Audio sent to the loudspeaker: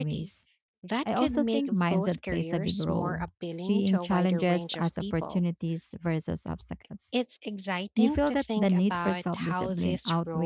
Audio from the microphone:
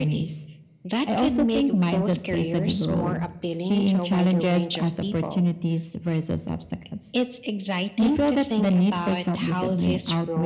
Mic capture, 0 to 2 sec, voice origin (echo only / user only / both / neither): echo only